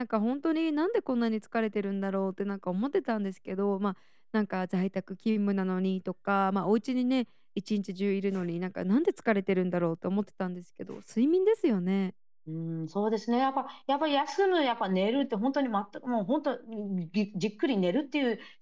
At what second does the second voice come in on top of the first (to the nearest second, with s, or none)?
none